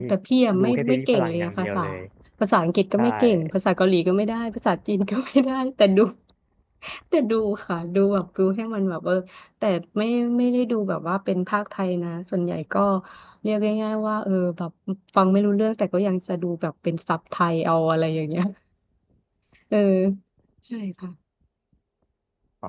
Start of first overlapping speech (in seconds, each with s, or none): 0.6 s